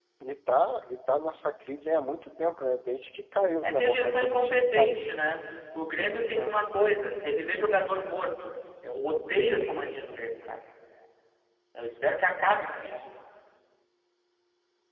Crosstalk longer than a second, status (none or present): present